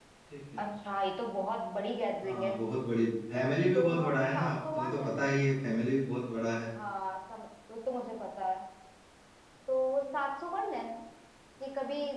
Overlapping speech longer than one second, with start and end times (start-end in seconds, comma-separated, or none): 3.8-5.1